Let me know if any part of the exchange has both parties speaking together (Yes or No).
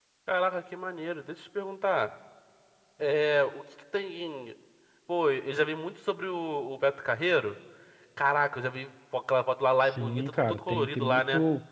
Yes